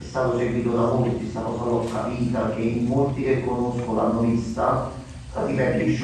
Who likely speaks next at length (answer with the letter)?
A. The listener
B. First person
B